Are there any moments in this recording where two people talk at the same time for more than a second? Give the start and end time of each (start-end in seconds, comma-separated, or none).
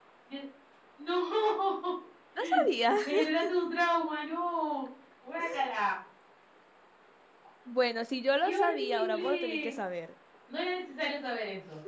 8.4-9.7